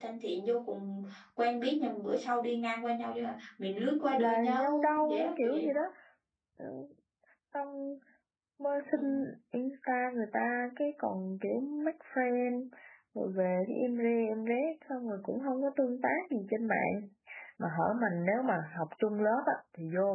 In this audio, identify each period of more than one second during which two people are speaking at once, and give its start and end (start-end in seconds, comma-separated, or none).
4.2-5.7